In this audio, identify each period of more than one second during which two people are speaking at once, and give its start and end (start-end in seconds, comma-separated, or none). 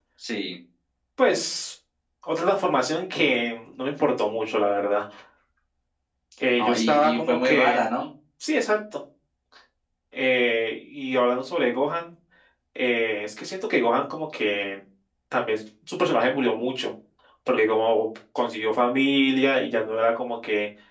6.6-7.8